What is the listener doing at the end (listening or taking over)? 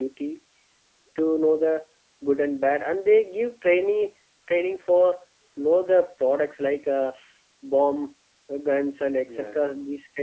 listening